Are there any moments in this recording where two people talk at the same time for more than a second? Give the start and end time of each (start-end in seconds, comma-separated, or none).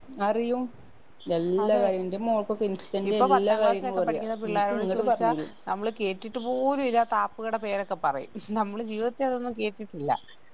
3.1-5.3